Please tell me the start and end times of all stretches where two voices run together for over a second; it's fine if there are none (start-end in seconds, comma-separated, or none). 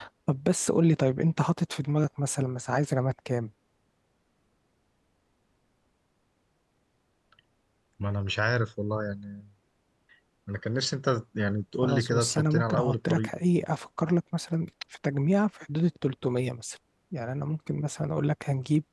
11.8-13.3